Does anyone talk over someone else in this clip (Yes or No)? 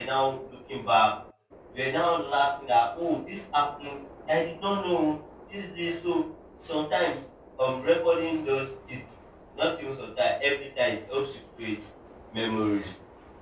No